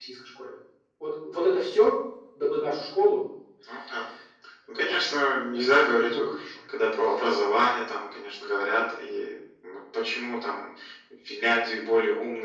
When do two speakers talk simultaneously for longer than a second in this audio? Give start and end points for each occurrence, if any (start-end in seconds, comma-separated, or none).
4.7-6.2